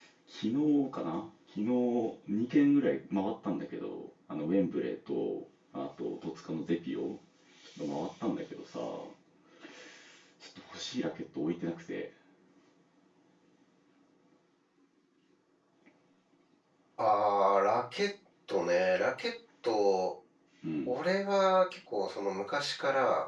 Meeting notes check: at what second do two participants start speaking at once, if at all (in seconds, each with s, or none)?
none